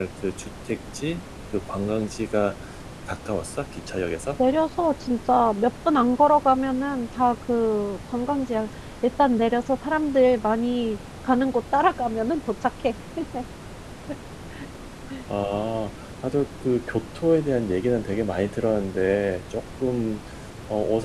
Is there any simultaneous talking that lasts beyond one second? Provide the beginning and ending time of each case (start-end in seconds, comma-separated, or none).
none